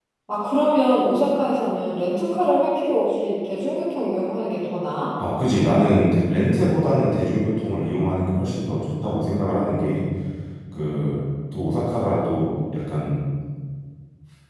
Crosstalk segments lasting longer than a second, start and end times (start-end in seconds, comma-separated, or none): none